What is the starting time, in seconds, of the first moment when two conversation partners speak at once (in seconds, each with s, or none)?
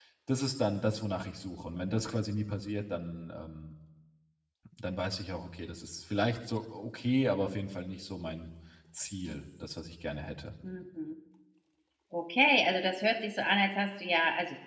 none